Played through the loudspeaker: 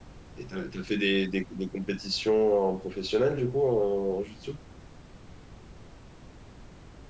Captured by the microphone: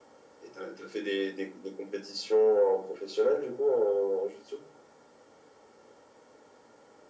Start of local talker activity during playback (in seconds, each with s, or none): none